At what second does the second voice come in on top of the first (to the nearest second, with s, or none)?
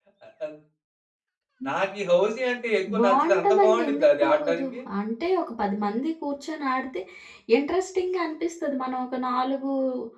3 s